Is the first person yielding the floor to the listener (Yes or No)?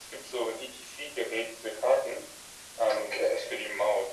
No